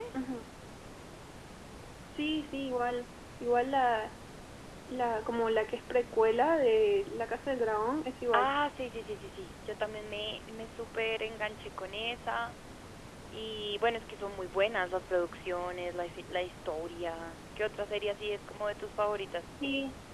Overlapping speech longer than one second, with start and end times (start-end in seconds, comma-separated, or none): none